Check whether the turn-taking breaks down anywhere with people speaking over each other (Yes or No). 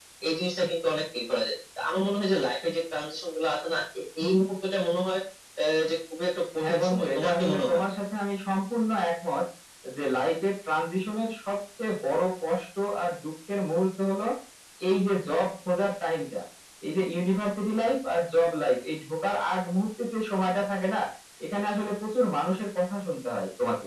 Yes